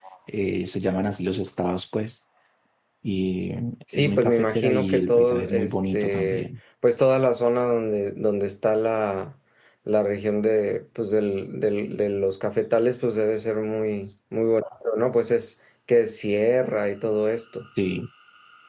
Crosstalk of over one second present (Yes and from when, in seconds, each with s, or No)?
Yes, from 3.9 s